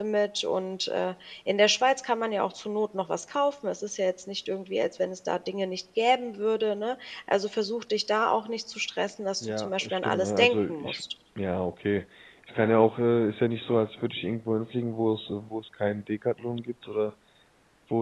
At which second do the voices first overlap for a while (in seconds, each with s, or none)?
9.4 s